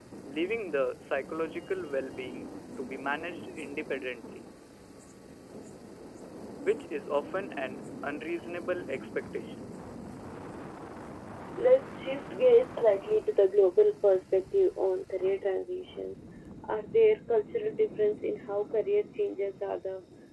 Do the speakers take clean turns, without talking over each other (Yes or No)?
Yes